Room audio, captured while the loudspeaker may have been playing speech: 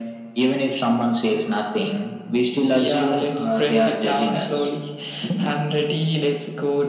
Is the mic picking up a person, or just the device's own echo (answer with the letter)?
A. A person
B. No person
B